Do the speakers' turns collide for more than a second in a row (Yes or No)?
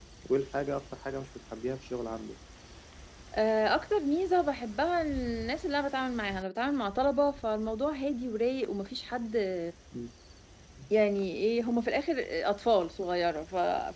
No